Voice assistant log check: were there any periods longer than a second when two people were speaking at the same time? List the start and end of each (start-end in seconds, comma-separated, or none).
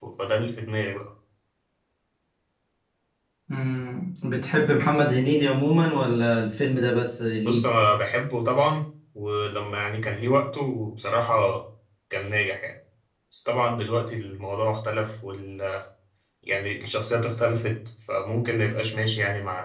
none